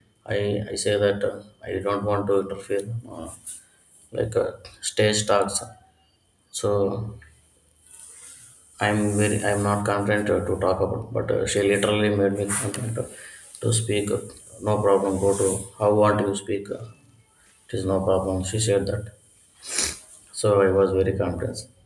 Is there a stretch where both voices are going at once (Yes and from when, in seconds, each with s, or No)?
No